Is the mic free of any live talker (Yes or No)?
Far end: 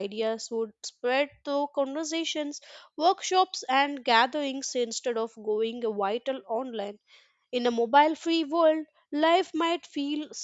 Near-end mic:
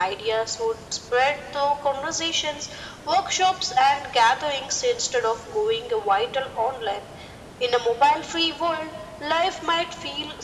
Yes